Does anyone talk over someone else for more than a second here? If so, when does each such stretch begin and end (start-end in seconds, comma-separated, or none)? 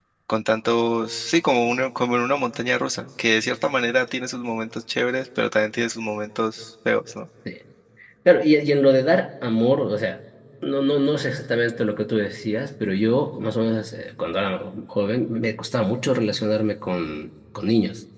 none